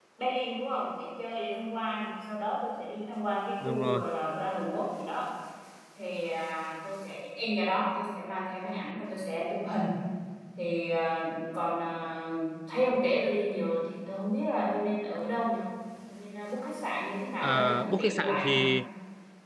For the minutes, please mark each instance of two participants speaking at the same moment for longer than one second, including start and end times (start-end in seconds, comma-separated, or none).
17.4-18.6